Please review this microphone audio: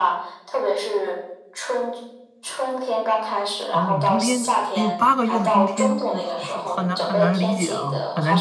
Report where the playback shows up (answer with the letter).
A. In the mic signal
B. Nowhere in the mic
A